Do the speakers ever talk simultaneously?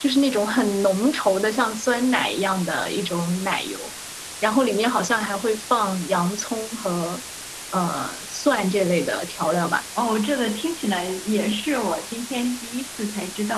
No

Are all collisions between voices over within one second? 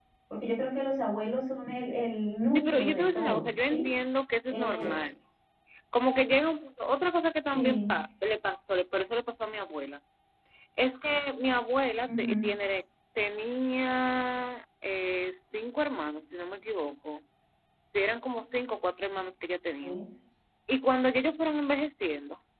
No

